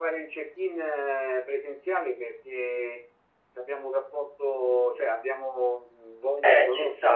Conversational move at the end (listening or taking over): taking over